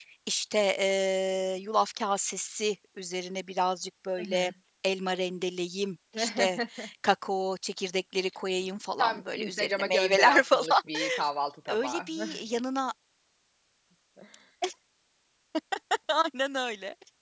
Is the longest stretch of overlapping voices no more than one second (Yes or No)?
No